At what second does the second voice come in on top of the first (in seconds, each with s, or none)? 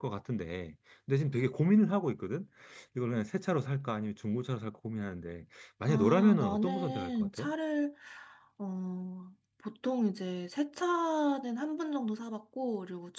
5.9 s